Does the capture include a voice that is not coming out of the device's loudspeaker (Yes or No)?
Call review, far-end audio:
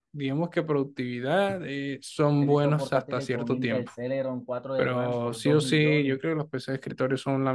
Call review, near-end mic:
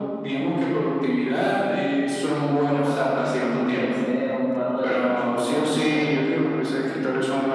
No